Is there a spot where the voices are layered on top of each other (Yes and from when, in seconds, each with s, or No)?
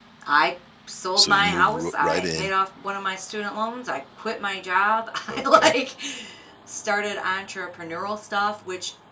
Yes, from 1.2 s